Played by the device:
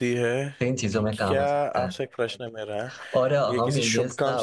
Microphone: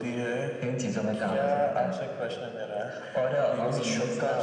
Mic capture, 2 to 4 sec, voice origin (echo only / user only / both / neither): echo only